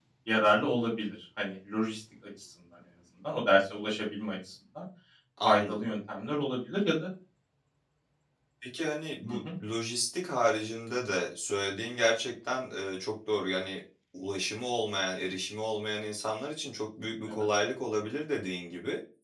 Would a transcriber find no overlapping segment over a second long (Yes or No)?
Yes